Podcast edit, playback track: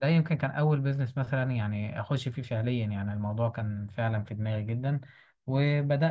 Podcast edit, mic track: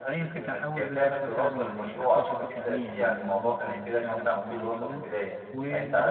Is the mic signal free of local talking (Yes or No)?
No